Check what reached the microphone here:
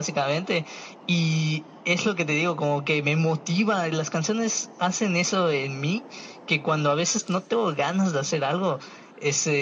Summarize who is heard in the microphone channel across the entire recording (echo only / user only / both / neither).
echo only